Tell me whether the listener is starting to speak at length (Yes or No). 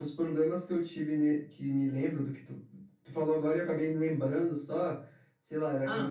No